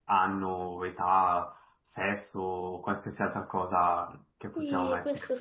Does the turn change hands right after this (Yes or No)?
Yes